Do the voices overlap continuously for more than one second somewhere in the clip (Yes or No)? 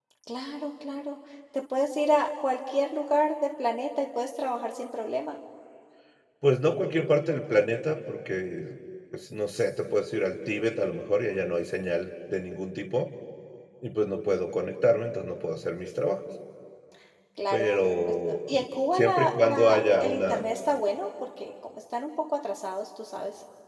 Yes